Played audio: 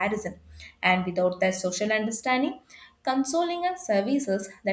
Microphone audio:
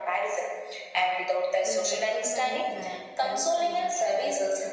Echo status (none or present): present